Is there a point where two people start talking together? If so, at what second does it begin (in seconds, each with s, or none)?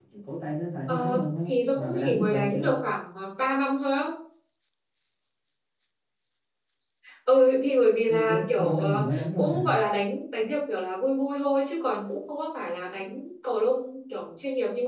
0.9 s